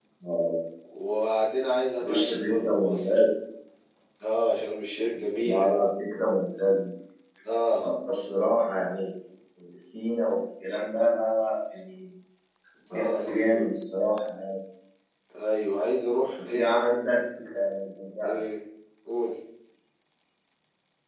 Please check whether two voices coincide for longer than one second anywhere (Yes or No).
Yes